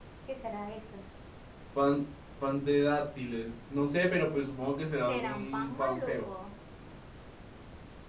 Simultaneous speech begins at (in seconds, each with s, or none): 5.0 s